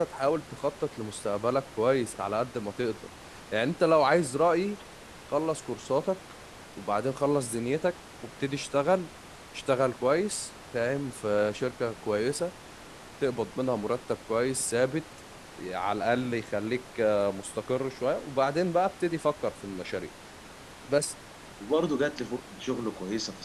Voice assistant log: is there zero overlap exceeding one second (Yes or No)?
Yes